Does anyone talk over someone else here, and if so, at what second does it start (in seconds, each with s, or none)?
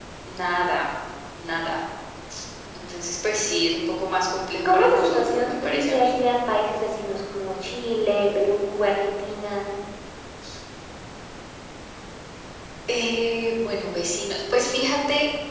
4.7 s